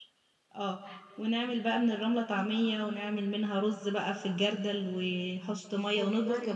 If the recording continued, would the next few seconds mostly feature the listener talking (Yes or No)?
No